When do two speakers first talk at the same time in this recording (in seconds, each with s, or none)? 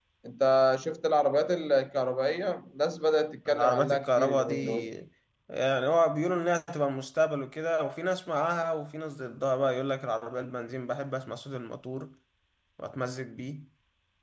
3.5 s